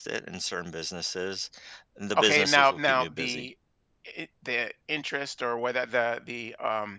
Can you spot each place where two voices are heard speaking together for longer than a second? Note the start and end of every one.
2.2-3.5

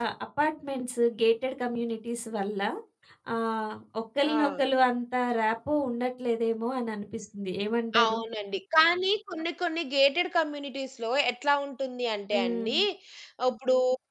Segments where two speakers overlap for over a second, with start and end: none

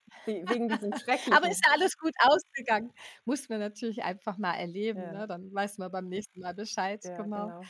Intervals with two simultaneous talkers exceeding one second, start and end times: none

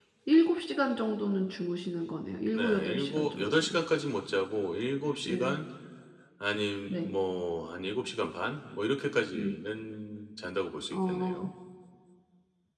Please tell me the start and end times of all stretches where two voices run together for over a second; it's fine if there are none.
2.5-3.8

